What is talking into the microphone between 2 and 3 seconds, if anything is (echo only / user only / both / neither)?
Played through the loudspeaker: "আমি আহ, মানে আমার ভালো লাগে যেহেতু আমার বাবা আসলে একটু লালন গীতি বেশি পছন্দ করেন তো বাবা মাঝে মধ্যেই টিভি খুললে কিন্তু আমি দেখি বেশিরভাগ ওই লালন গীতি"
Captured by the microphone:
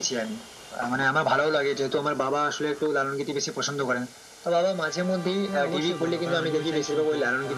echo only